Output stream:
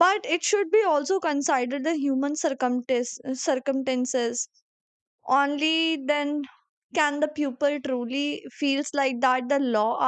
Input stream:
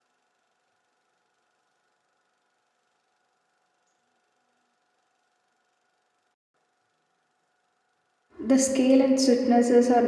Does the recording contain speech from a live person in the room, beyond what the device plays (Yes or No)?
Yes